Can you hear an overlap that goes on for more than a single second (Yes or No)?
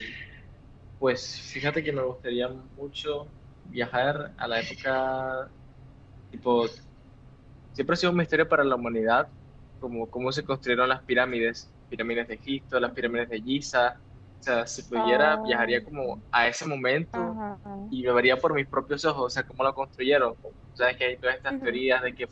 Yes